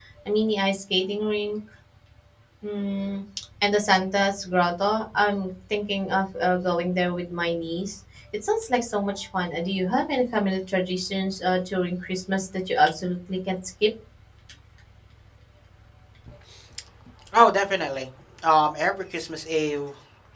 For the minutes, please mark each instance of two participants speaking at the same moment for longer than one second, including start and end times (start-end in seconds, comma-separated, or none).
none